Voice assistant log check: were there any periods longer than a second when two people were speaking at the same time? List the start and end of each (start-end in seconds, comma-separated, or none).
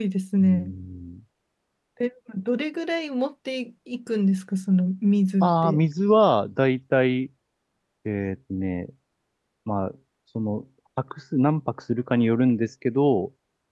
none